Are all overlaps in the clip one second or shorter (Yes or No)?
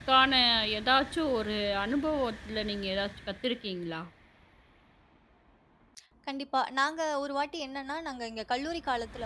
Yes